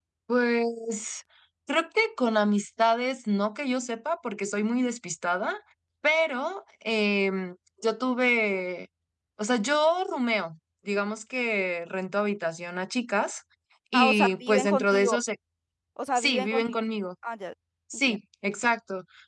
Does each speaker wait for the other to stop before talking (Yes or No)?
No